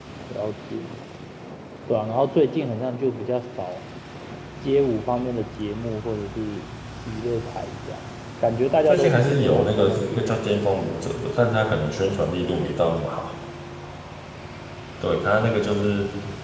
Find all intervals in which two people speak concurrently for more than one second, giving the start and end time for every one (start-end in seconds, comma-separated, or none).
8.9-10.5